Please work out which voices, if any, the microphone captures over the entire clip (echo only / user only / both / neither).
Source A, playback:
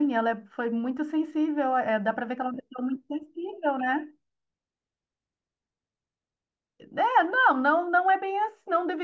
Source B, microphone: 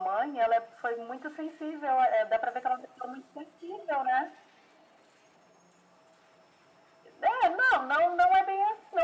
echo only